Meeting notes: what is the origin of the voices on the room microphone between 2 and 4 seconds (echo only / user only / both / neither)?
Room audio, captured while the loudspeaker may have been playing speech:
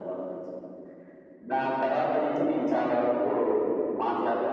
echo only